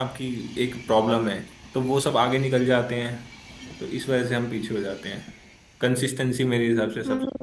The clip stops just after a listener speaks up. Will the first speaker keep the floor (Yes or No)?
No